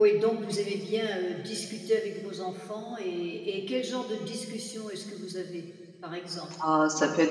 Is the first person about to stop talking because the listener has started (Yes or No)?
Yes